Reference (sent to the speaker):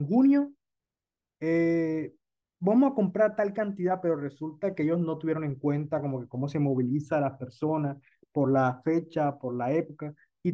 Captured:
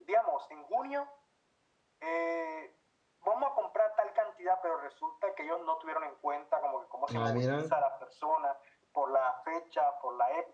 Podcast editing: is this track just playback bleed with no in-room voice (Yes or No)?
No